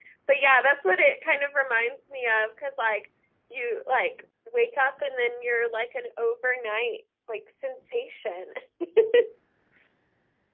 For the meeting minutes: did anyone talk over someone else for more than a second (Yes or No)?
No